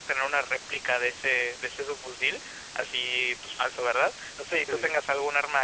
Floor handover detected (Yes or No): No